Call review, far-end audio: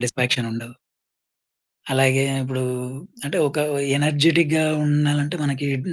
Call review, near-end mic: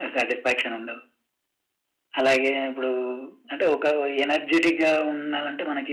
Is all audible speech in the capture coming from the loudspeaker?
Yes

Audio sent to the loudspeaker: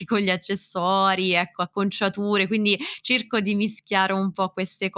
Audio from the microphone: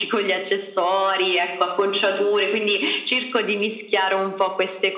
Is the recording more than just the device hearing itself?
No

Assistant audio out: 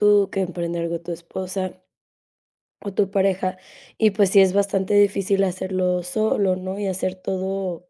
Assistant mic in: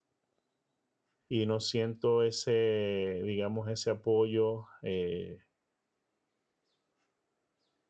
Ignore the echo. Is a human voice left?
Yes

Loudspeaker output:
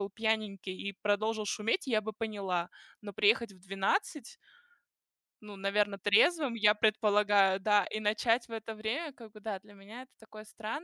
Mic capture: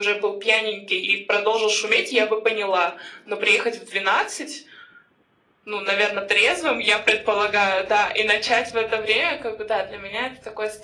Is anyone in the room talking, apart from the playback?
No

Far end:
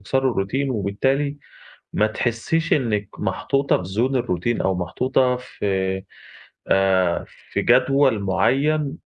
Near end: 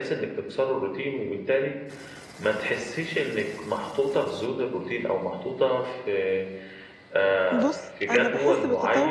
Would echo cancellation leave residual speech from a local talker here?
Yes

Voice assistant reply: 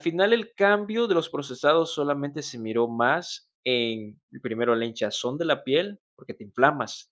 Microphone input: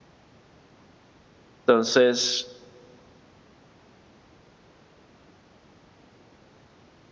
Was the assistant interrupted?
Yes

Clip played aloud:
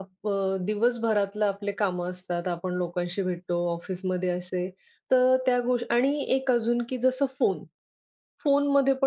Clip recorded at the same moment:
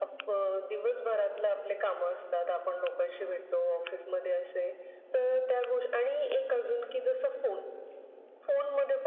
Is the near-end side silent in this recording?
Yes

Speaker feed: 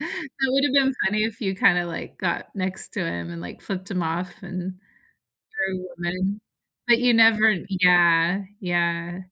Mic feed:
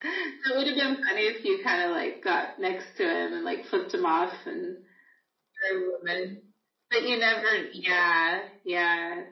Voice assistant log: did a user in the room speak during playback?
No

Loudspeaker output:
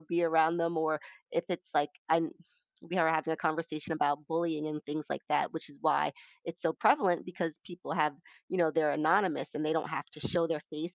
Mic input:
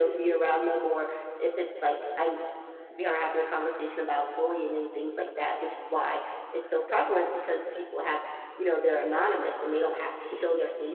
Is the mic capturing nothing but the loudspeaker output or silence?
Yes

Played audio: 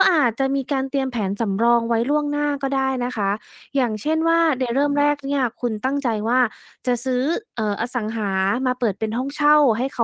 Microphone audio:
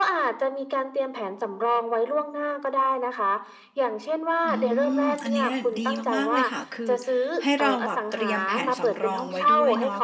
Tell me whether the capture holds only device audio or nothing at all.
No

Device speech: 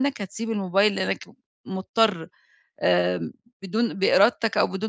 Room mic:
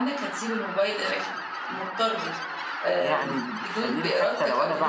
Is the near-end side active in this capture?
Yes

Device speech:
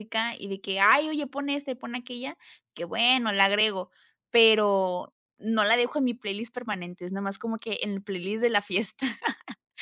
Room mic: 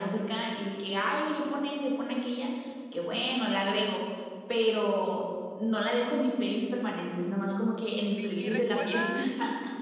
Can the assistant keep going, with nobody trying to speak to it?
No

